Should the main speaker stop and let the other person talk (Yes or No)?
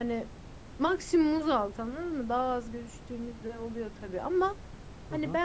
No